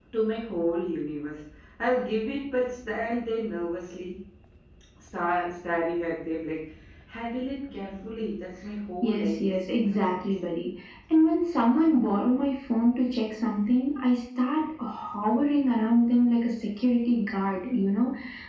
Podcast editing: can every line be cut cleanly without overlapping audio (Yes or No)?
No